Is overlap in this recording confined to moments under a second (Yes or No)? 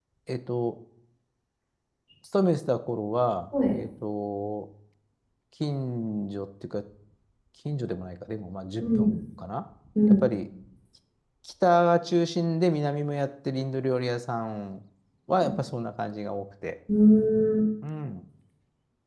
Yes